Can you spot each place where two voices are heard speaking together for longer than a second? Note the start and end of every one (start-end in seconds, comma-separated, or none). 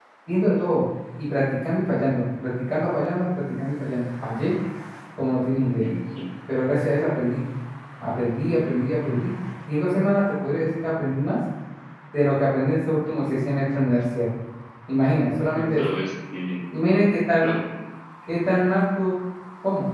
none